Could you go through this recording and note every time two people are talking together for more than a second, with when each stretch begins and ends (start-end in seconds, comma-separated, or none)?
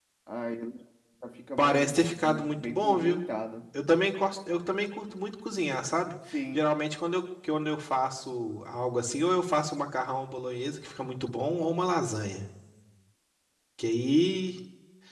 1.6-3.2